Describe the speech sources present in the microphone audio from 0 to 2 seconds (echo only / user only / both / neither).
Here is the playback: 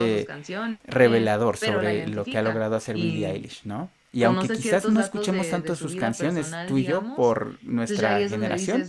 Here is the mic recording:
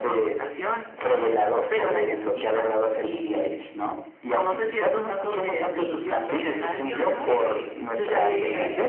echo only